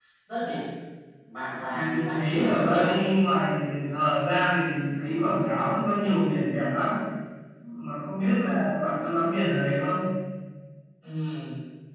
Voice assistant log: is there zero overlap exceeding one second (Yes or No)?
No